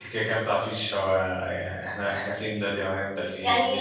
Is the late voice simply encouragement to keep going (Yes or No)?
No